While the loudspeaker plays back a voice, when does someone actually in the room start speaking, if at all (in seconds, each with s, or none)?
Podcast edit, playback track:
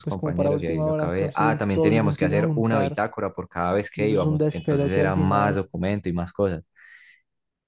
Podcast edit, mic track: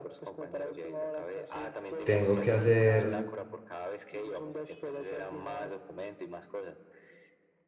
2.0 s